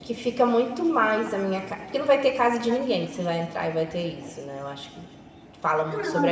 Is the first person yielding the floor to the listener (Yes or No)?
No